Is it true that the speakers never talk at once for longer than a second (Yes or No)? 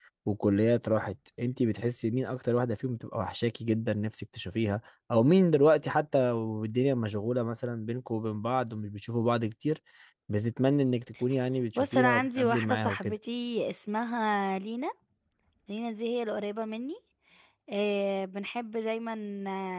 No